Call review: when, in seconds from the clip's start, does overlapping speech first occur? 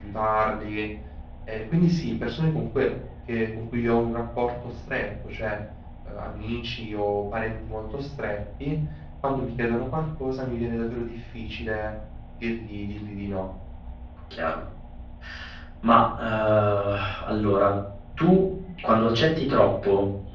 none

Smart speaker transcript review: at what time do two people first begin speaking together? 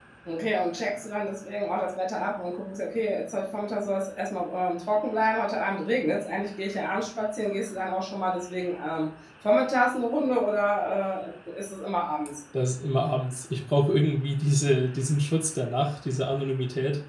none

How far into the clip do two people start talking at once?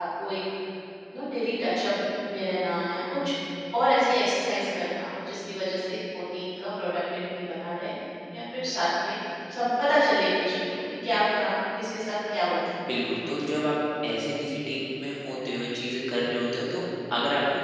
none

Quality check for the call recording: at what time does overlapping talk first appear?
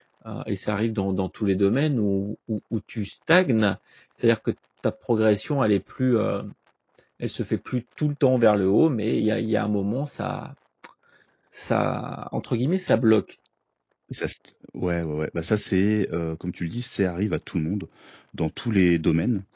none

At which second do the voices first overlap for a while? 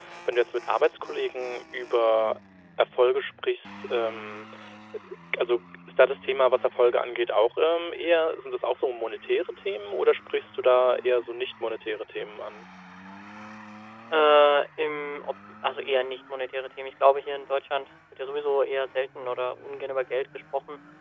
none

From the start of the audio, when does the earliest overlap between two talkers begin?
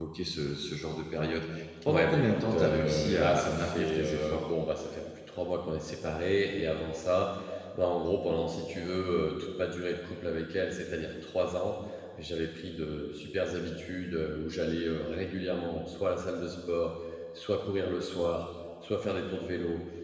1.9 s

